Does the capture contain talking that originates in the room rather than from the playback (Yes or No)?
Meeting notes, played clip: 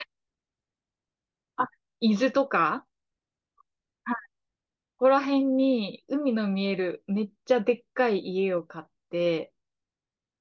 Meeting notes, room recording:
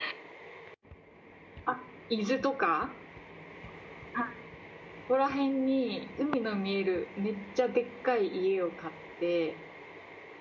No